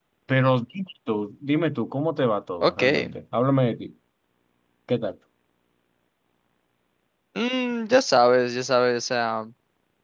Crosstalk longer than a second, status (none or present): none